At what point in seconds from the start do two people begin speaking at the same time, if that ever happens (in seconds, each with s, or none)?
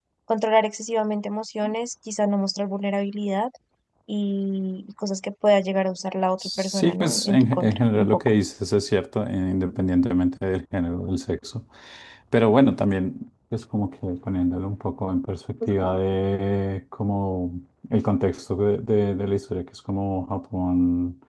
6.4 s